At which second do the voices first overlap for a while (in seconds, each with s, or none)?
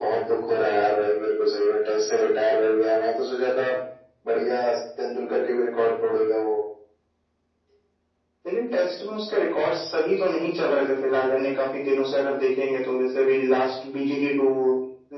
none